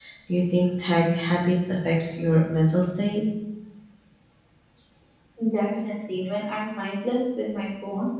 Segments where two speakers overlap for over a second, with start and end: none

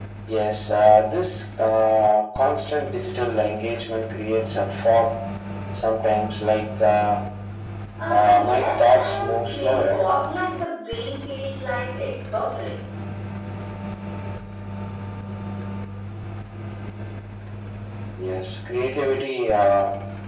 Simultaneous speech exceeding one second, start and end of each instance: 8.1-10.1

